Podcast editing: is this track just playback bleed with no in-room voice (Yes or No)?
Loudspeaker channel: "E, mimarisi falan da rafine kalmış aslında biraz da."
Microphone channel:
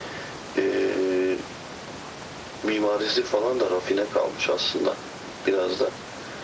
Yes